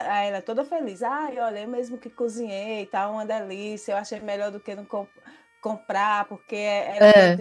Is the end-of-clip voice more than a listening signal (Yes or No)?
No